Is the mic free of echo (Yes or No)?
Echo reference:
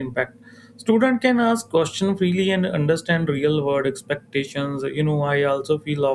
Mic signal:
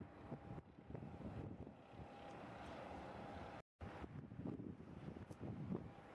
Yes